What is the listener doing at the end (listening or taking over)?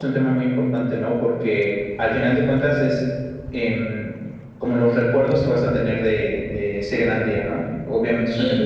listening